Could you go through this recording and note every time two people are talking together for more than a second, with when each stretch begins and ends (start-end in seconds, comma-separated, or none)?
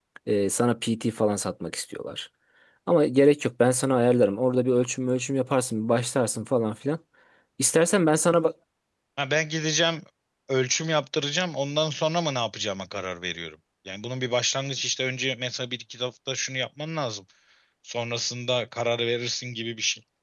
none